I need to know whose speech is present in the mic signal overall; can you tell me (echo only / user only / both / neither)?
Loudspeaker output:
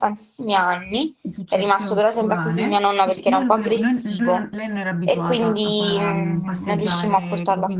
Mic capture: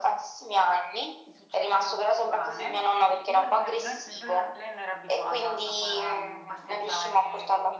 echo only